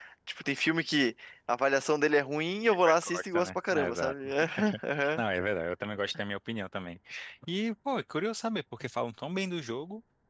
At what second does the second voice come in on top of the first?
2.8 s

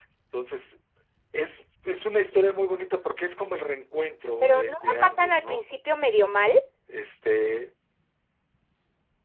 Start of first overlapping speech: 4.4 s

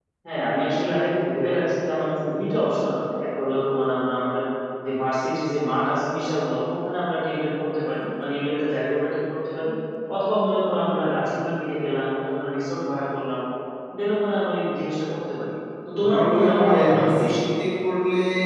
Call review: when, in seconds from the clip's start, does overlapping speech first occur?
16.0 s

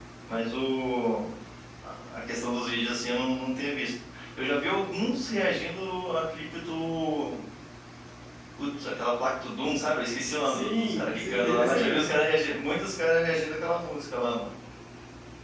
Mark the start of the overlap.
10.4 s

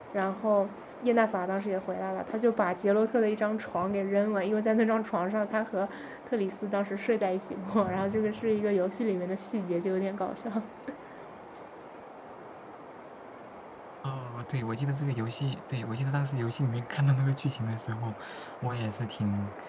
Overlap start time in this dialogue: none

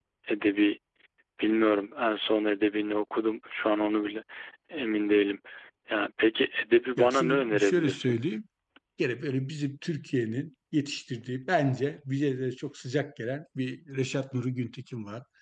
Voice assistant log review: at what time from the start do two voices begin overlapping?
7.0 s

